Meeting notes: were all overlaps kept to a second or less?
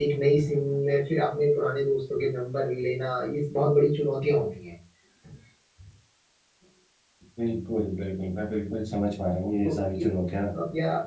Yes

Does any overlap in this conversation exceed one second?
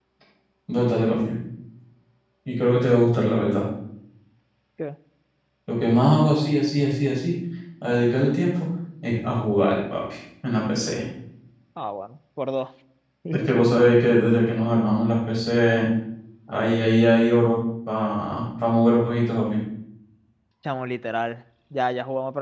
No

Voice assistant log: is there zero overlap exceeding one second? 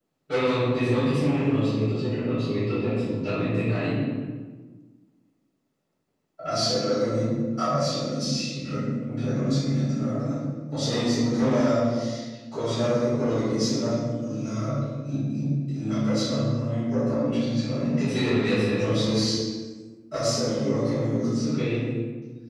Yes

